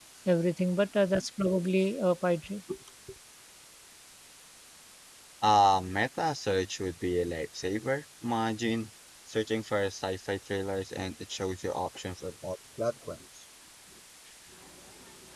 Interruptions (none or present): none